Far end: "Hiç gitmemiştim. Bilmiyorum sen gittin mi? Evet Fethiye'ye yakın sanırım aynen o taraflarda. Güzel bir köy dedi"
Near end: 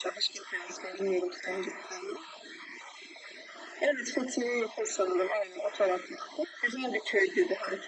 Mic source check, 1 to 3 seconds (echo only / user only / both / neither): echo only